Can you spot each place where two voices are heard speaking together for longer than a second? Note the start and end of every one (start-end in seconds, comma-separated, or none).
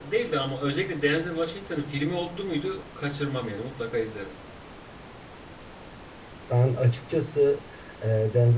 none